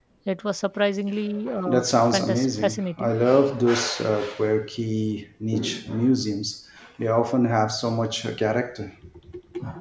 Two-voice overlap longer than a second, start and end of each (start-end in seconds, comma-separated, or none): 1.7-3.1